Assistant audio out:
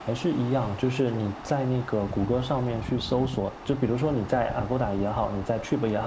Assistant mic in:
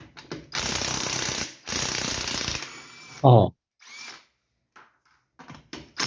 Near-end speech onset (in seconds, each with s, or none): 3.2 s